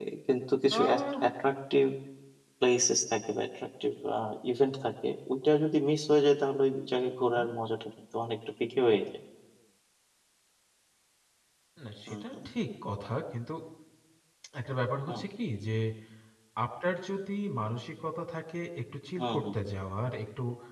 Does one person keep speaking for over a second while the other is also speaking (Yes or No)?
No